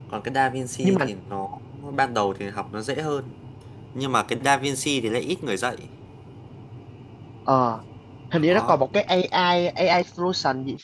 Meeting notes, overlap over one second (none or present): none